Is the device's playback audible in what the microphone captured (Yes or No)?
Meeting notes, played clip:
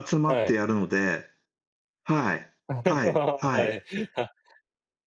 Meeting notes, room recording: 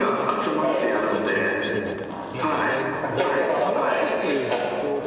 Yes